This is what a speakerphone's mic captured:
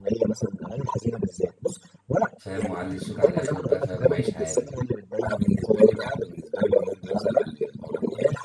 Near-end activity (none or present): present